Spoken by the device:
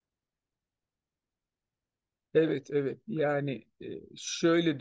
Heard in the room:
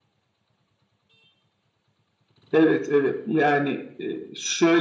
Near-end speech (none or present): none